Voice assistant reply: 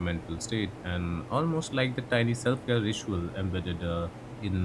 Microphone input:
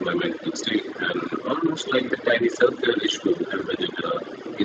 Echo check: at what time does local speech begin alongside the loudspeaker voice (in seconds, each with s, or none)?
none